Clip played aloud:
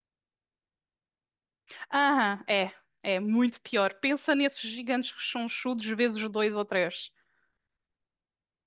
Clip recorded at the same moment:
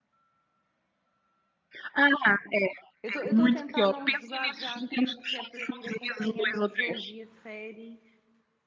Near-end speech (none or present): present